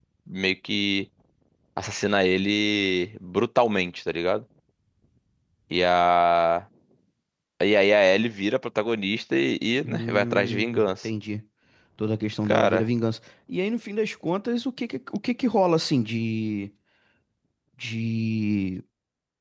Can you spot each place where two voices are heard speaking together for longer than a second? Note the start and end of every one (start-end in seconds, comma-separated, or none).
9.8-11.1